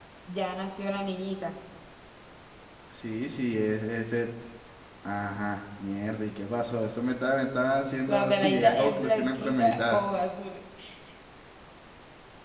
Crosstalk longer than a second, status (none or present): present